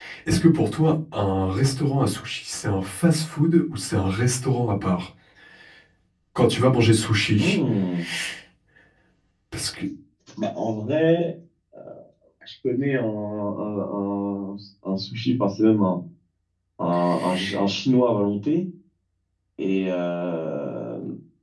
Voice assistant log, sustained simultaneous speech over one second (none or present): none